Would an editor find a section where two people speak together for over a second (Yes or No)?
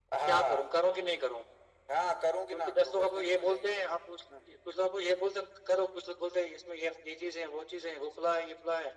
Yes